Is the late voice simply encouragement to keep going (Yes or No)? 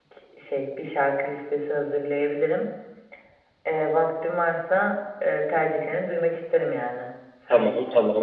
No